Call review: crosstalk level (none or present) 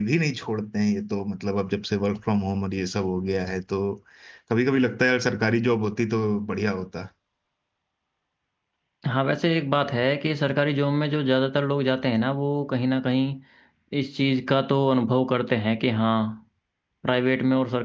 none